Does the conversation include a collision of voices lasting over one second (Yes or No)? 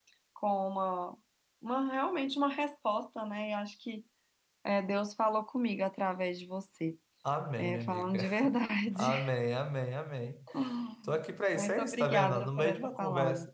Yes